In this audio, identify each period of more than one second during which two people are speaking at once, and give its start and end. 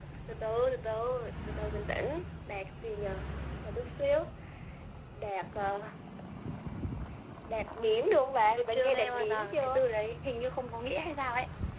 8.6-9.8

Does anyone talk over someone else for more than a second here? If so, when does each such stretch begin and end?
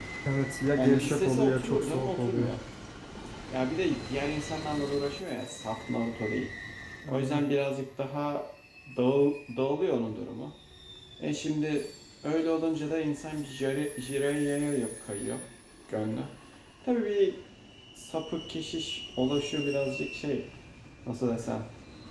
0.8-2.5

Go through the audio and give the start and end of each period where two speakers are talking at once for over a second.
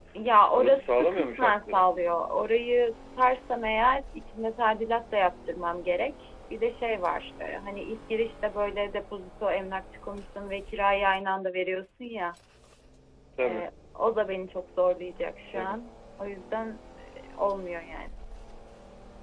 0.5-1.8

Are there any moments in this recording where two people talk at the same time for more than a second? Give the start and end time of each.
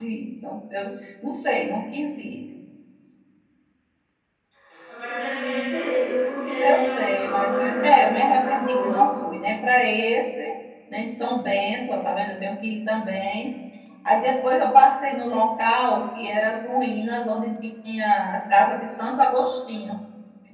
6.6-9.0

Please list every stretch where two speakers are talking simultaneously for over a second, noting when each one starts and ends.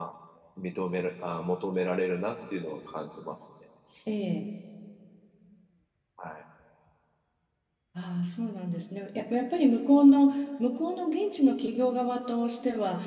none

